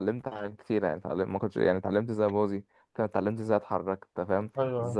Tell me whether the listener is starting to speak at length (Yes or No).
No